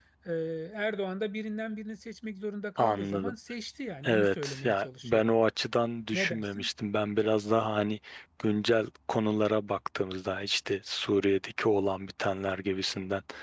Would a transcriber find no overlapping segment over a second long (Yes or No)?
No